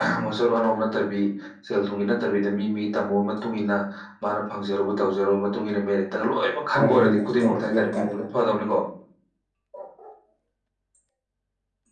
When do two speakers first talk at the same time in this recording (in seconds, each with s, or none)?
6.7 s